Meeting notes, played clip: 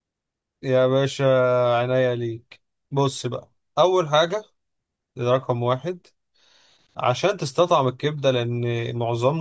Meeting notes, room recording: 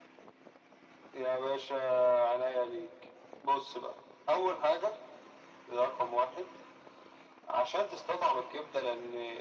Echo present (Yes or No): Yes